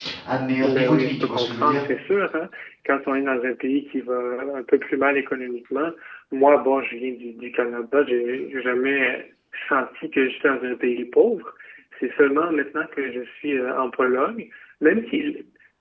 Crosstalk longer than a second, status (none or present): present